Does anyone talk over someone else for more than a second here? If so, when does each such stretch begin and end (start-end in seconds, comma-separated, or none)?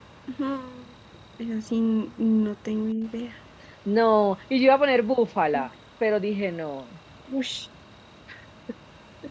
none